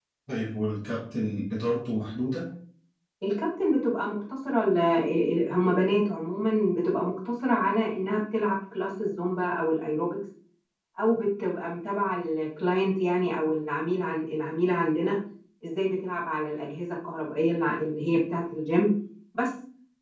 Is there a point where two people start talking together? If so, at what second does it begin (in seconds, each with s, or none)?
none